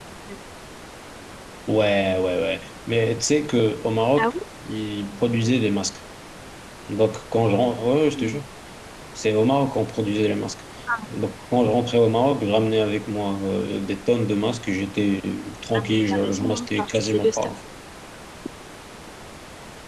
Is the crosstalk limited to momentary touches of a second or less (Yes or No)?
No